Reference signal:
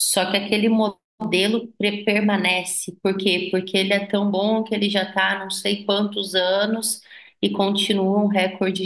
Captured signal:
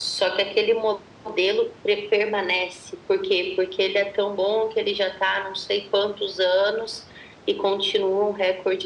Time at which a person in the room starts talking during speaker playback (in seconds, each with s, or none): none